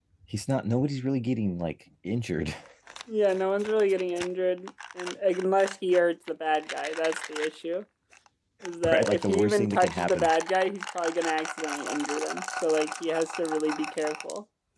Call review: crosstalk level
present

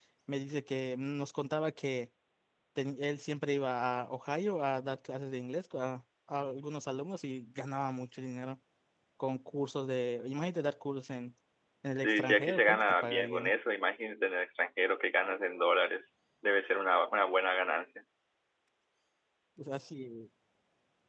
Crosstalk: present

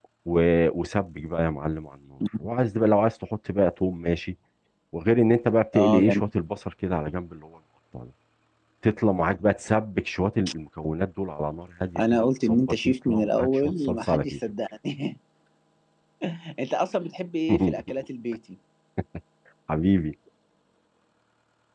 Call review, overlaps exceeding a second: present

